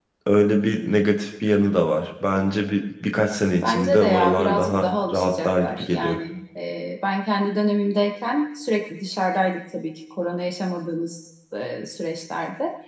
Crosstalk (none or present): present